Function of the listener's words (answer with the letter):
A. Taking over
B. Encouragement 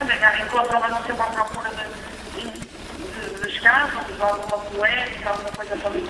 A